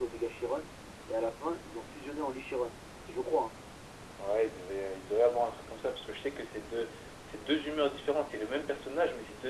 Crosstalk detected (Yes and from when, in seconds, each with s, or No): No